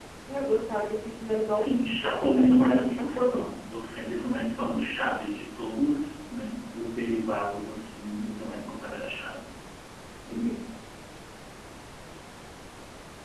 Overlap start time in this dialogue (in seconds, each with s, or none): 1.5 s